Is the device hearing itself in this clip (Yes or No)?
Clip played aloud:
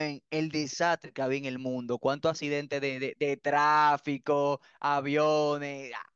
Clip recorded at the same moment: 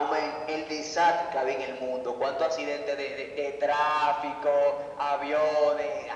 Yes